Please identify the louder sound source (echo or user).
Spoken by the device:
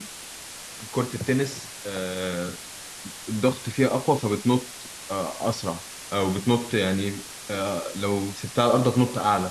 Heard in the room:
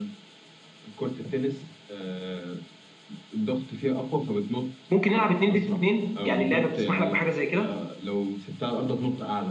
user